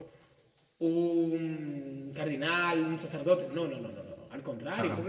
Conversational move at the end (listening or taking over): listening